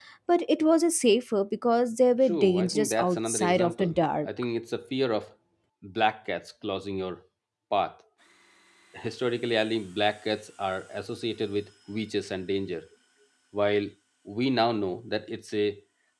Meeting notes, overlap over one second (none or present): present